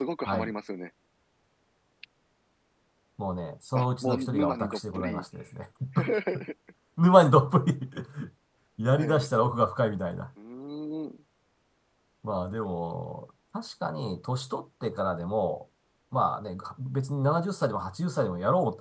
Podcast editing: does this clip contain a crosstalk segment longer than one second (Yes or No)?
Yes